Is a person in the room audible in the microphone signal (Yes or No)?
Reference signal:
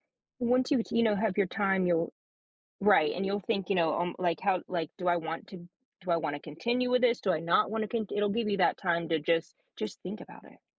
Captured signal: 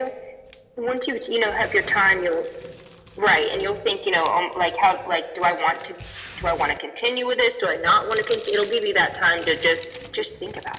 No